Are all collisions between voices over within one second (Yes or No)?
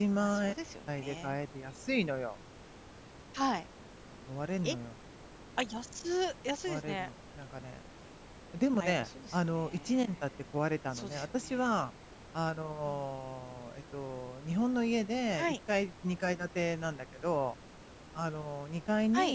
No